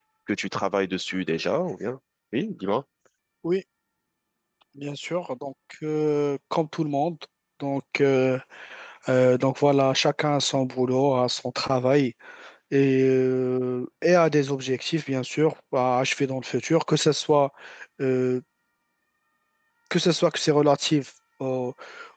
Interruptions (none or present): none